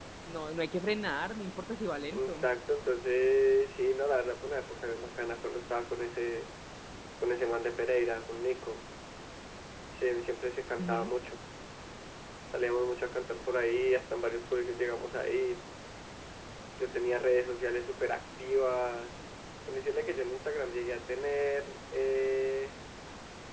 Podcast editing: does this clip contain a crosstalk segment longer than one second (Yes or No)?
No